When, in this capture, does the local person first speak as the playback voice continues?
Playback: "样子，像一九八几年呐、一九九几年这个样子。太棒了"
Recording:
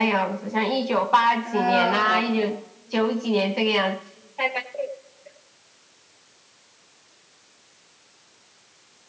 1.4 s

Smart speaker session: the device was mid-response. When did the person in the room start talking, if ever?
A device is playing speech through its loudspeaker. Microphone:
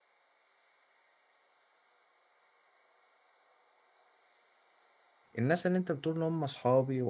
5.4 s

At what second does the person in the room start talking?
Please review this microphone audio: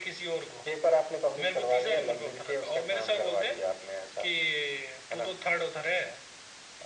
none

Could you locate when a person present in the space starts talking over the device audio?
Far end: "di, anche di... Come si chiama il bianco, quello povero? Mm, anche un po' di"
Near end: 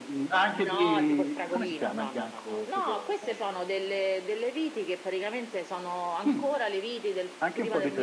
0.5 s

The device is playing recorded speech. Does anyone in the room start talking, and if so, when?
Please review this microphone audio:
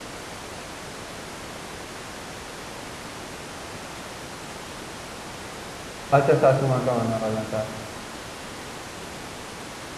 6.1 s

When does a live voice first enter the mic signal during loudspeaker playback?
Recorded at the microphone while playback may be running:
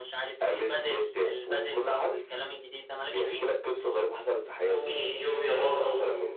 4.7 s

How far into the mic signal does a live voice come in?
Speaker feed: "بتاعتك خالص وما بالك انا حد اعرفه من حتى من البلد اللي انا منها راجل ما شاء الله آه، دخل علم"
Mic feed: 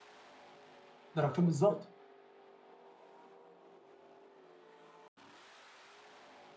1.1 s

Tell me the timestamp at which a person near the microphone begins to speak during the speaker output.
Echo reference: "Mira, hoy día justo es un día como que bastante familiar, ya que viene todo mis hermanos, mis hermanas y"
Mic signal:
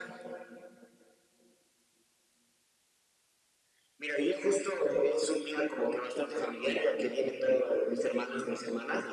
none

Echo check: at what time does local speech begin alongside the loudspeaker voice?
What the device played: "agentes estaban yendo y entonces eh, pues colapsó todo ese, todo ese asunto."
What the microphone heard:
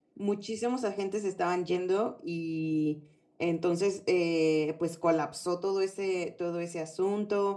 none

